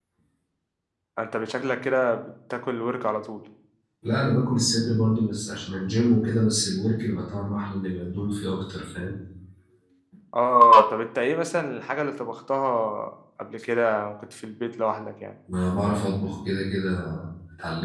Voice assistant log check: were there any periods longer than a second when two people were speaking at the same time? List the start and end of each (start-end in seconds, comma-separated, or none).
none